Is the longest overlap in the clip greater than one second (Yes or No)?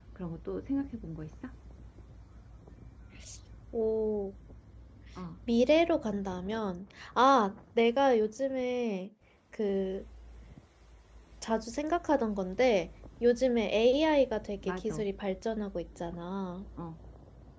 No